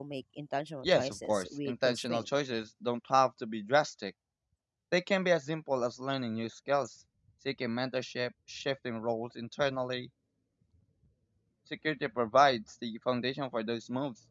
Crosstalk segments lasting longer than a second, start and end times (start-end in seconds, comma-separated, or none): 0.8-2.2